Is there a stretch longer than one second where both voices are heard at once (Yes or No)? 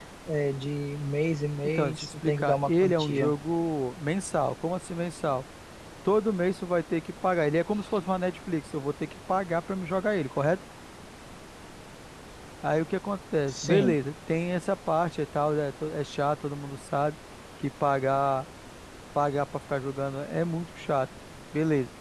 Yes